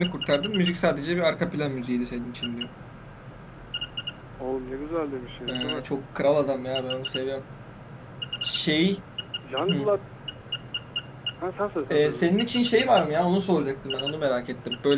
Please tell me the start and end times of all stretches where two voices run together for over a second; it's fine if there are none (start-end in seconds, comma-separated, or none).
none